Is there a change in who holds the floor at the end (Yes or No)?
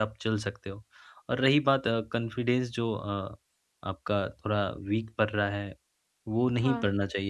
No